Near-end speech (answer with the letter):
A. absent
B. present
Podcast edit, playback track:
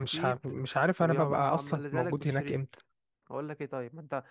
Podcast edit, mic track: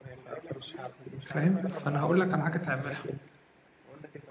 B